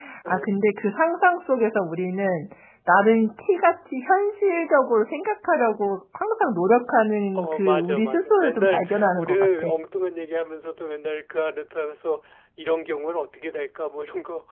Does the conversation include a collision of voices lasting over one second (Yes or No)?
Yes